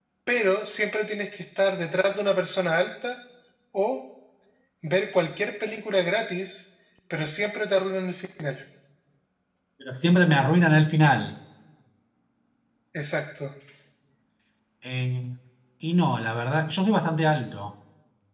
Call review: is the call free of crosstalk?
Yes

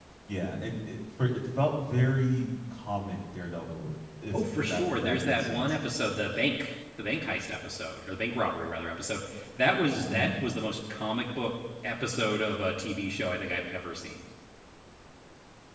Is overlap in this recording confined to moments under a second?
No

